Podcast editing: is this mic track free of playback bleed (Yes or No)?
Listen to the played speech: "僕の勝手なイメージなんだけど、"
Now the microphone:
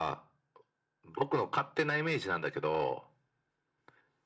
No